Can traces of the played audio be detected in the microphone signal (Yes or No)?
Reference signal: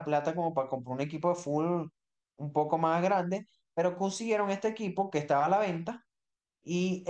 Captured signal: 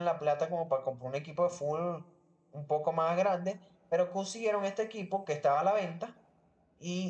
Yes